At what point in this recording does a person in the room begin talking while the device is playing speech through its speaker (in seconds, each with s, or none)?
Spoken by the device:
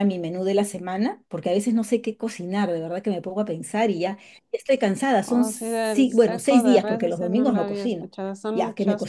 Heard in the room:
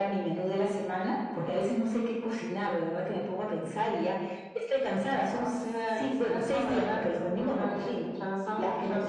none